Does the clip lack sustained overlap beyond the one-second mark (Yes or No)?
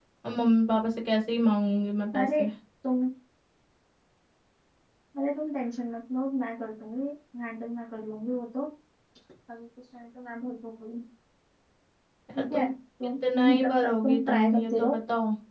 No